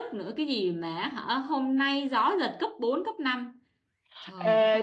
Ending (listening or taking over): taking over